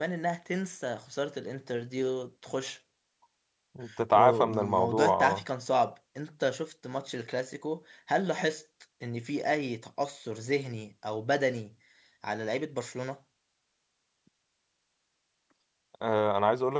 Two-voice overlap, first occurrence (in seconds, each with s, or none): 4.1 s